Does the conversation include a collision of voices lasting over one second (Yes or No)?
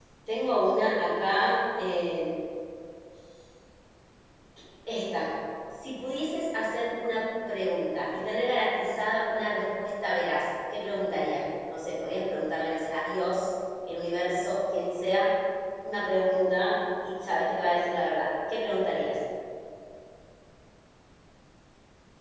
No